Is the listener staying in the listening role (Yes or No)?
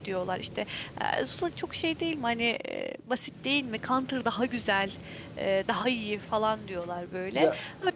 Yes